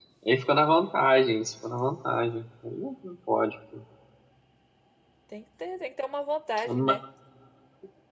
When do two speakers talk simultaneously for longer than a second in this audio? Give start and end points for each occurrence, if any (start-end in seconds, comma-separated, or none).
none